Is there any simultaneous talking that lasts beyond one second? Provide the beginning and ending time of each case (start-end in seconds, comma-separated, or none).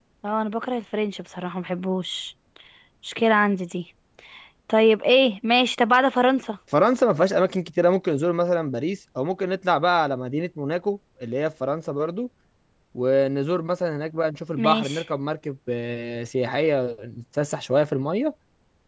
none